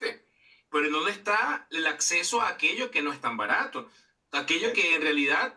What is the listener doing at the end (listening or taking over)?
listening